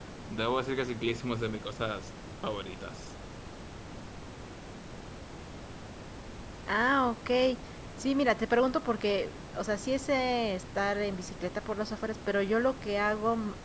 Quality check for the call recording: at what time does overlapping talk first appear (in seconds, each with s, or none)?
none